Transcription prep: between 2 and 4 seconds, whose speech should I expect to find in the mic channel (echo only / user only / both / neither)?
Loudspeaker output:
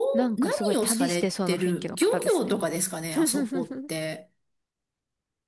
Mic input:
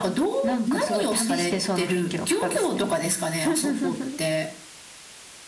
echo only